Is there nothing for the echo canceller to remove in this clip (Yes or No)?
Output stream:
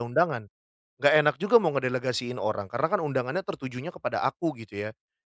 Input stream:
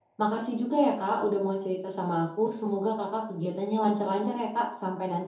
Yes